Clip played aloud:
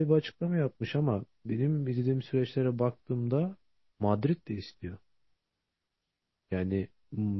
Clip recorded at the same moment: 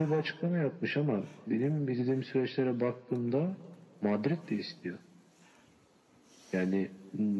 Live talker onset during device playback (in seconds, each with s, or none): none